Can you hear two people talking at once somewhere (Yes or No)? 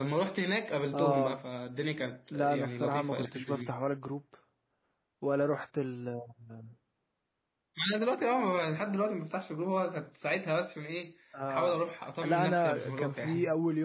Yes